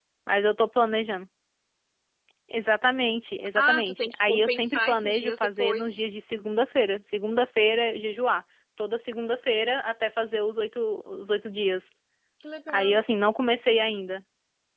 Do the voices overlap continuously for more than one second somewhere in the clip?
Yes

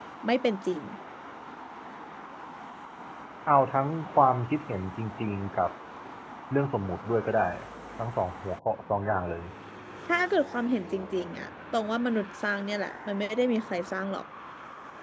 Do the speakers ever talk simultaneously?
No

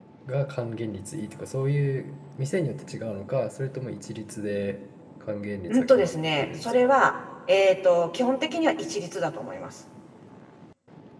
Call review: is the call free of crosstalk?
No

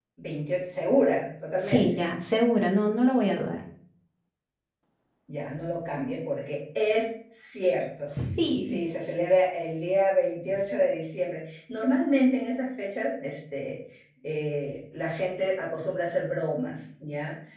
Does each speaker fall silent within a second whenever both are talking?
Yes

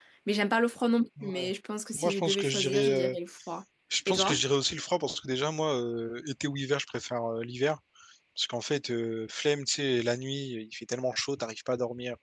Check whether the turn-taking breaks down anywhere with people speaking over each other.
Yes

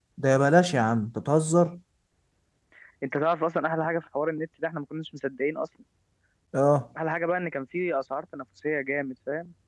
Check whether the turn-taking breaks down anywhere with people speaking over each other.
No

